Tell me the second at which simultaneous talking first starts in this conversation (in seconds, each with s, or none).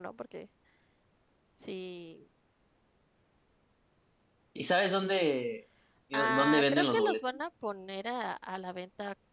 6.1 s